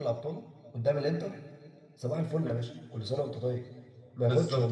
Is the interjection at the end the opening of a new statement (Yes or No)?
Yes